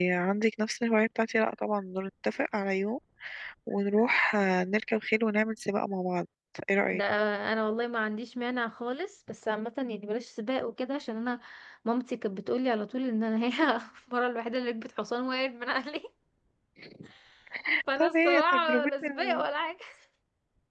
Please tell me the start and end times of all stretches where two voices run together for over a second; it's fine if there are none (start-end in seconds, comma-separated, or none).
18.0-19.4